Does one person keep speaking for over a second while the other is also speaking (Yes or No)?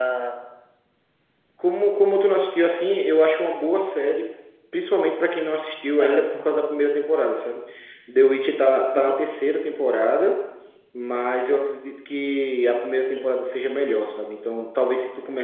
No